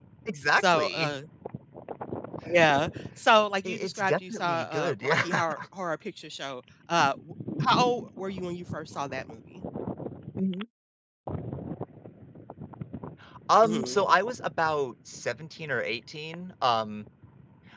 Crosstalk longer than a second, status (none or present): present